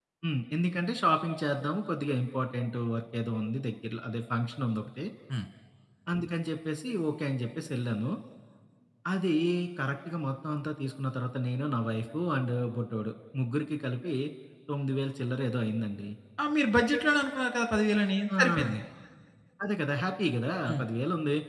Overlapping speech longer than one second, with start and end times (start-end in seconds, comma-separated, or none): none